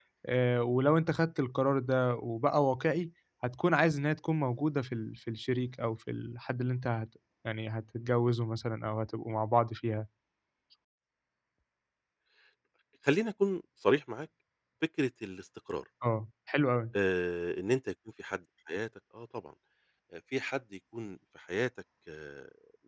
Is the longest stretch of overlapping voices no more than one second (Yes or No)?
Yes